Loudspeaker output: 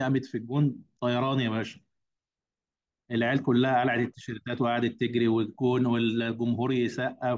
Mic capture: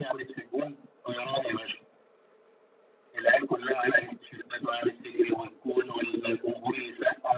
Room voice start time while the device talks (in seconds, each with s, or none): none